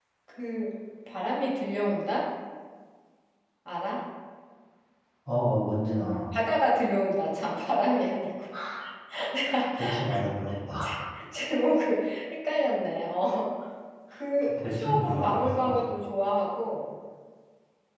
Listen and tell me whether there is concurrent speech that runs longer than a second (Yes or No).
Yes